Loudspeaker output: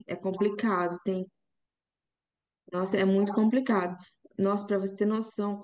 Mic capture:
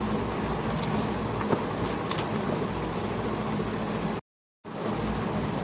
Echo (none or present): none